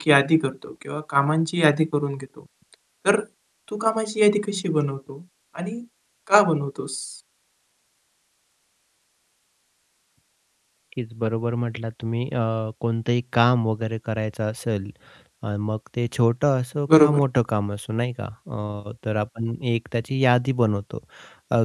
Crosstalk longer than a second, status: none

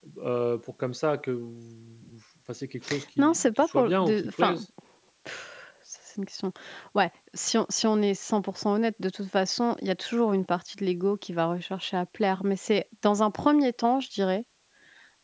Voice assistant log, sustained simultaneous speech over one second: present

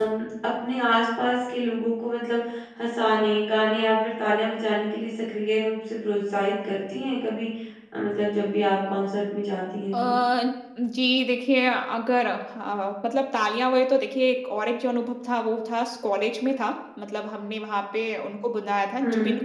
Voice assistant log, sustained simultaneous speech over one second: none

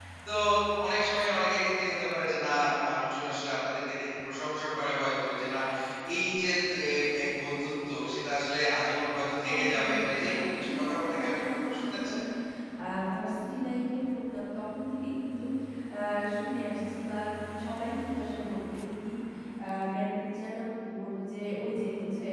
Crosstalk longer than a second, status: present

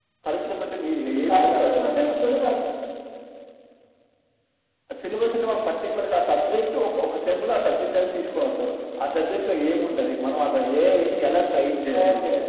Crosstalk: present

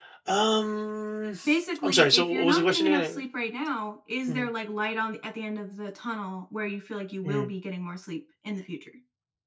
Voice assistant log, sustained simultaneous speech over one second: present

